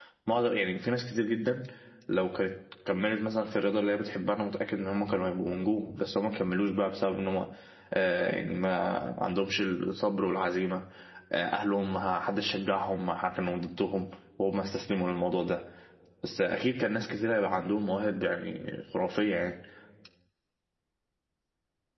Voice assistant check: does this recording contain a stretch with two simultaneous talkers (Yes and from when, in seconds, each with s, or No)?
No